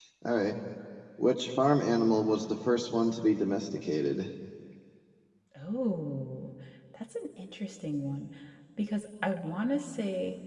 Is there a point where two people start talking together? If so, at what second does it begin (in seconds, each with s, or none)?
none